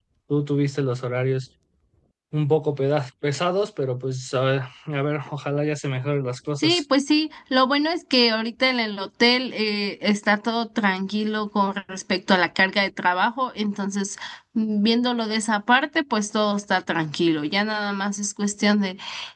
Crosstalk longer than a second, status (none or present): none